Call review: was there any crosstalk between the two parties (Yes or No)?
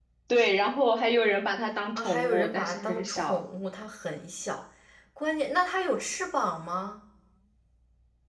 Yes